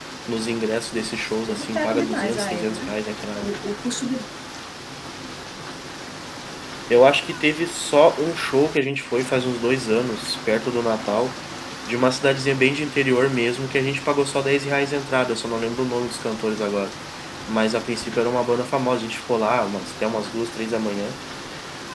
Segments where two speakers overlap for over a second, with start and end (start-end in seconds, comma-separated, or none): 1.2-2.9